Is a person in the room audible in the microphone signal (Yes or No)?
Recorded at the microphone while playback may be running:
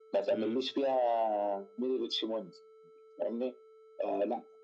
Yes